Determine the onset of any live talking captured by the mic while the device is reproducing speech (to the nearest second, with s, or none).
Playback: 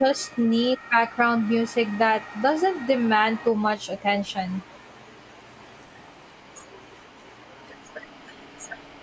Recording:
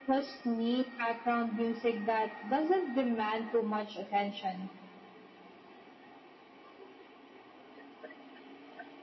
none